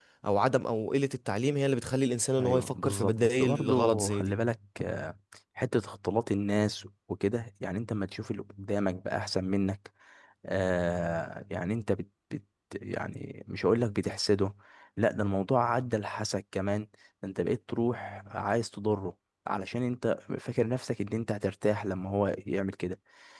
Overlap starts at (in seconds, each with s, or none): 2.4 s